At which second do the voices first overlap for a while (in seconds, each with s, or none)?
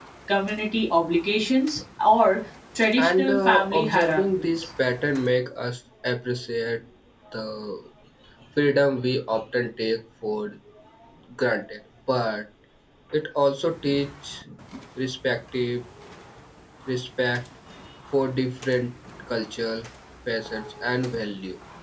3.0 s